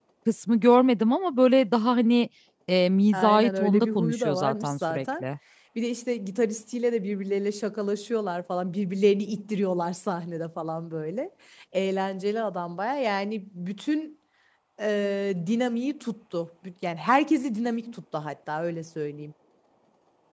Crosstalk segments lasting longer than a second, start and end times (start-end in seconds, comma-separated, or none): 3.1-5.2